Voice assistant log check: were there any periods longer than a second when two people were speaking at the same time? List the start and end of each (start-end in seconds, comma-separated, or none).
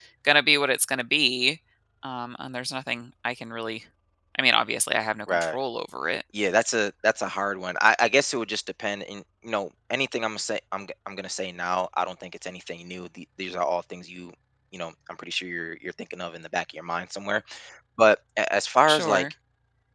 none